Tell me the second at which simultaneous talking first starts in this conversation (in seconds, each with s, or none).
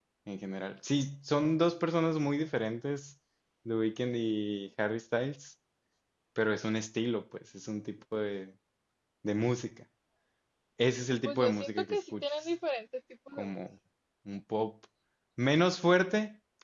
11.2 s